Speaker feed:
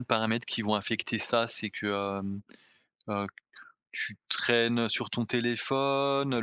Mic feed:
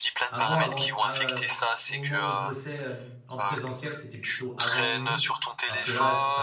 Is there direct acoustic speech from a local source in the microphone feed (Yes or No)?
Yes